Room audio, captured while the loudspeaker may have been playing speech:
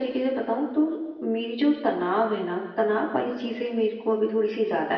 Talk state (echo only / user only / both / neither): echo only